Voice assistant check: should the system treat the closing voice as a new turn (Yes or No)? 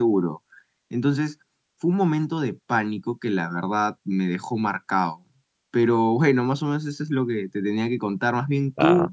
No